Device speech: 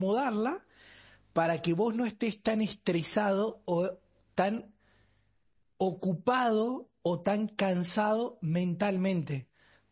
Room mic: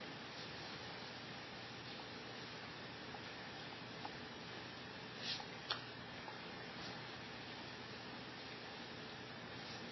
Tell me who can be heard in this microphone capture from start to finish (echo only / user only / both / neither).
neither